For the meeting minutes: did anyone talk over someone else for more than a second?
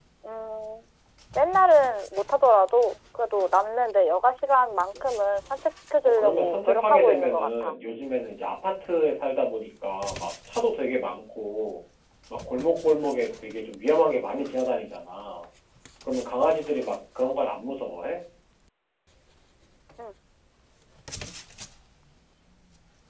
Yes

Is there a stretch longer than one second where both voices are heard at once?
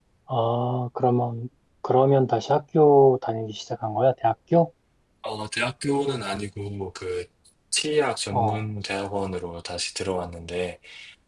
No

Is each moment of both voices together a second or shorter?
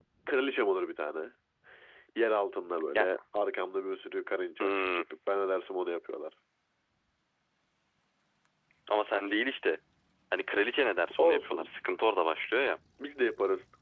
Yes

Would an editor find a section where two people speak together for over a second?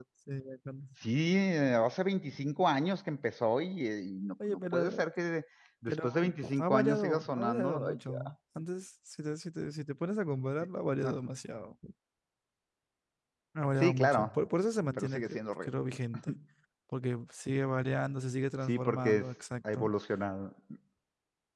Yes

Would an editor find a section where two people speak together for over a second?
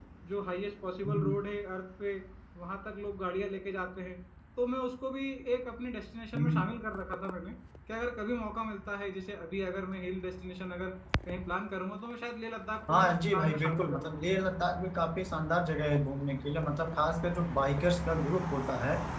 Yes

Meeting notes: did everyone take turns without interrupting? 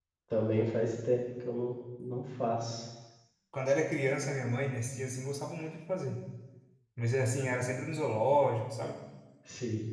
Yes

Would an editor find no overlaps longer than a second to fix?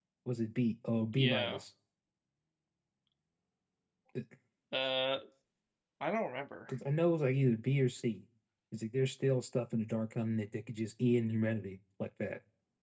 Yes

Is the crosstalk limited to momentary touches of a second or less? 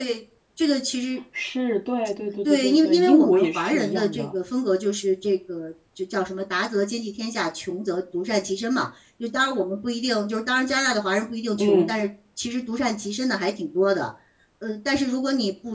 No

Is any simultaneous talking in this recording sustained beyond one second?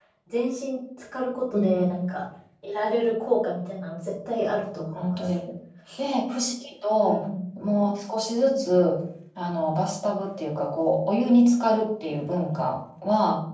No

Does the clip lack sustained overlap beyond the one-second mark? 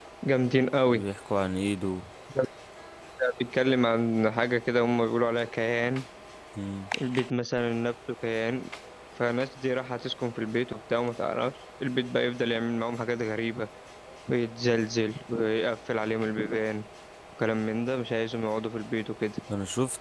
Yes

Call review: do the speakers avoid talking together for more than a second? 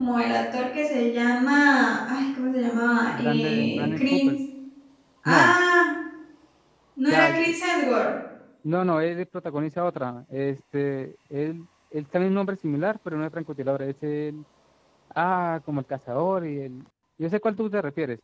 No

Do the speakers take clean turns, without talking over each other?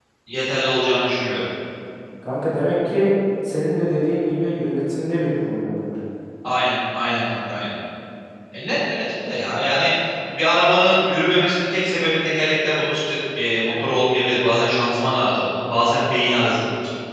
Yes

